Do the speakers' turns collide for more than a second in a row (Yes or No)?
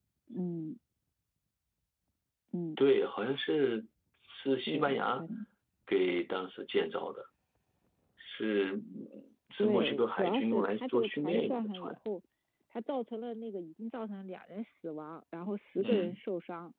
Yes